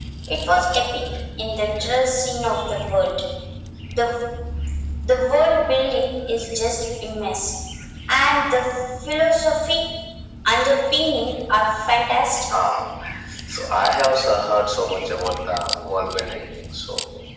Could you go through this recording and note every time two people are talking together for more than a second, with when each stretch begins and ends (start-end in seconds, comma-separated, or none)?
none